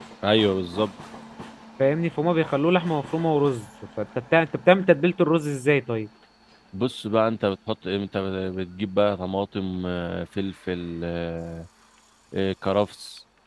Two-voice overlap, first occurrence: none

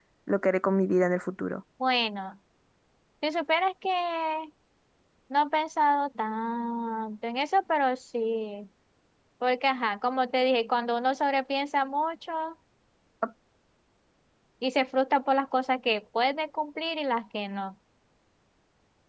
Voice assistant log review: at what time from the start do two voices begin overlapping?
none

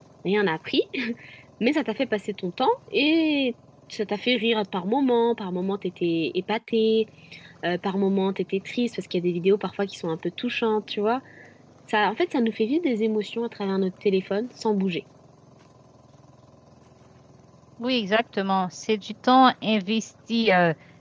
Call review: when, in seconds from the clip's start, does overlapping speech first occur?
none

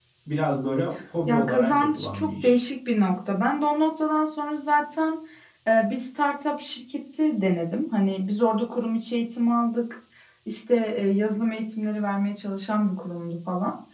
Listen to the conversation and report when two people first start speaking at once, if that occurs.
1 s

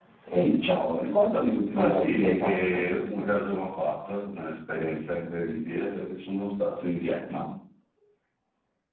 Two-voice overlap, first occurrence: 2 s

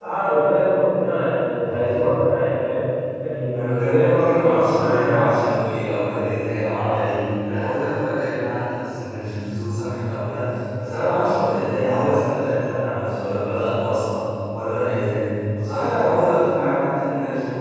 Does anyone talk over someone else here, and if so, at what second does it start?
4 s

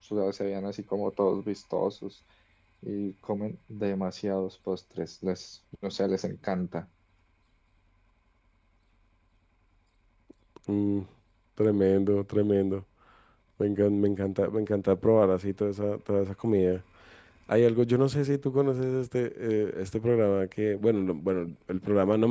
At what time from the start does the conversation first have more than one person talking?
none

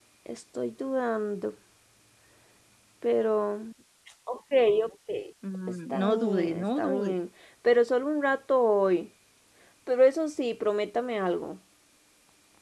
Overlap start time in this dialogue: 6 s

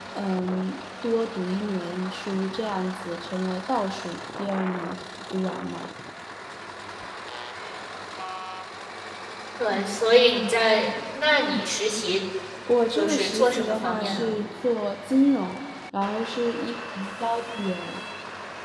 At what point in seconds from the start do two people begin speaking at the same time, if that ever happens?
13 s

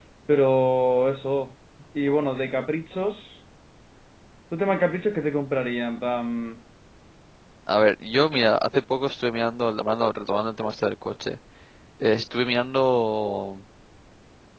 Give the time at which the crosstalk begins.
none

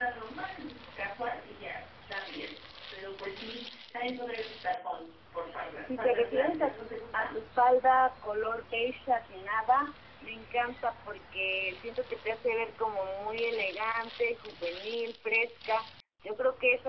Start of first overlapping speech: 6 s

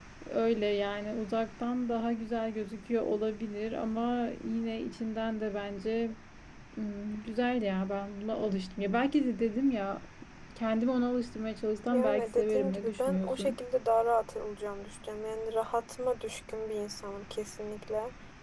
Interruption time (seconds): 12 s

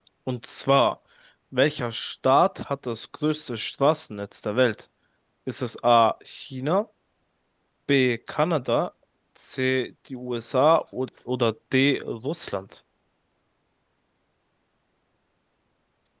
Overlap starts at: none

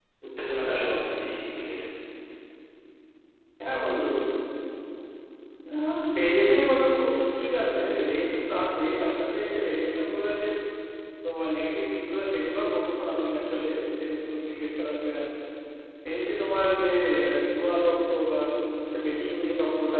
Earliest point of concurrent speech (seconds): none

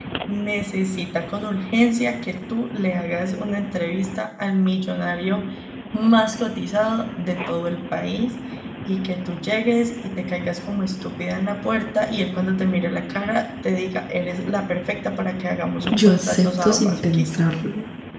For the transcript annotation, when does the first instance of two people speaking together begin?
16 s

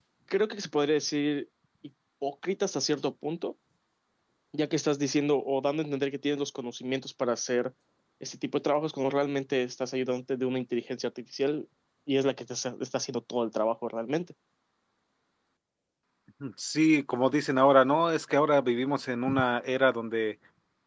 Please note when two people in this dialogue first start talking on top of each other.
none

